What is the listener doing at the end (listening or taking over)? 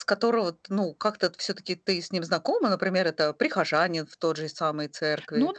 taking over